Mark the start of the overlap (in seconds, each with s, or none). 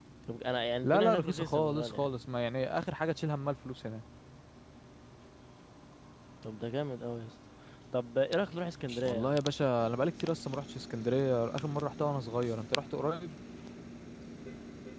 0.8 s